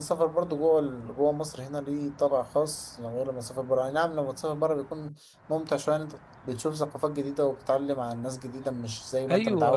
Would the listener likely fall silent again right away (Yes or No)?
No